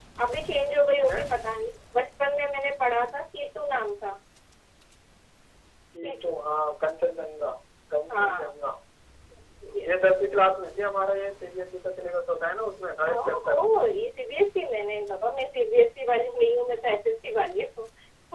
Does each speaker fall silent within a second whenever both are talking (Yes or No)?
Yes